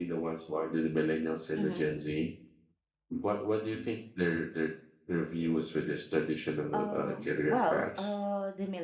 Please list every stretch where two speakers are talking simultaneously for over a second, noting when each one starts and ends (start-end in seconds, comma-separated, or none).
6.7-8.0